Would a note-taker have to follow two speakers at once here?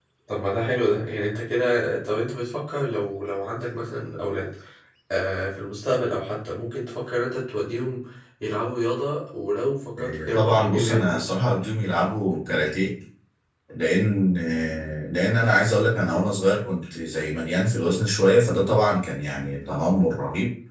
Yes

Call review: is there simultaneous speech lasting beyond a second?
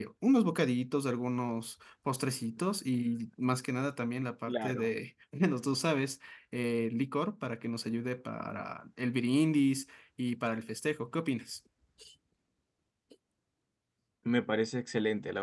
No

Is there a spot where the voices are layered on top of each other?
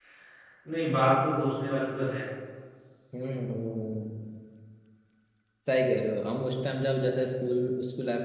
No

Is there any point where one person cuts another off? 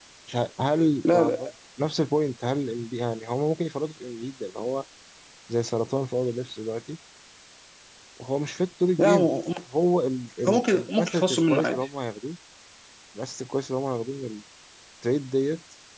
Yes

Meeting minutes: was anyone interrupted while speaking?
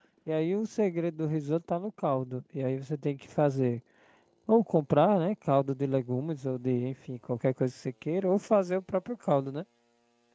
No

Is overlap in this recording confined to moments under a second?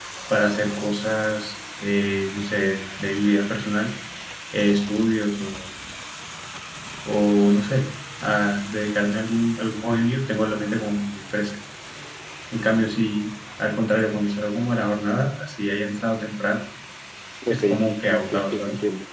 No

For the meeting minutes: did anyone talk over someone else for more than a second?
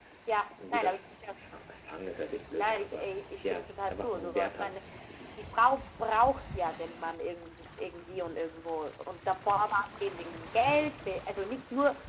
Yes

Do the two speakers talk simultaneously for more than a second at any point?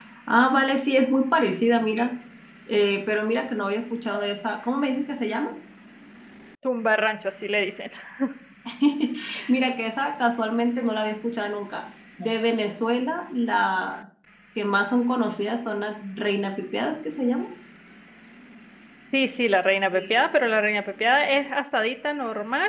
No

